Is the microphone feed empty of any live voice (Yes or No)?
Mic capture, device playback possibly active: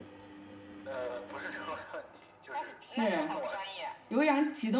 No